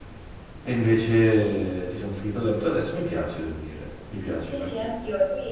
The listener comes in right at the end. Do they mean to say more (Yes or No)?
Yes